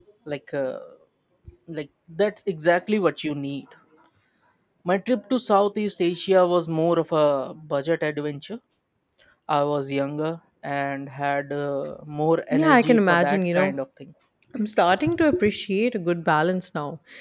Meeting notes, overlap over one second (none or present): present